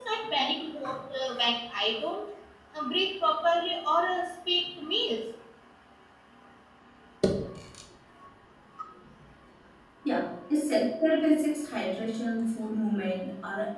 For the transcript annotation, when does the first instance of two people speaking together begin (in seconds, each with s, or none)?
none